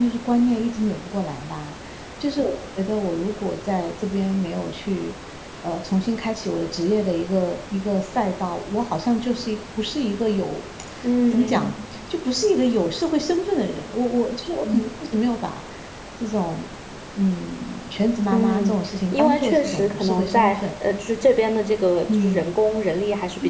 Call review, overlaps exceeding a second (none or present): present